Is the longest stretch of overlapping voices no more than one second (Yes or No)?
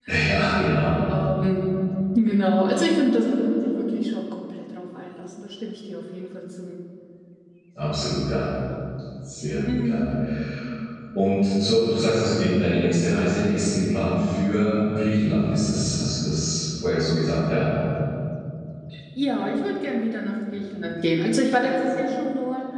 Yes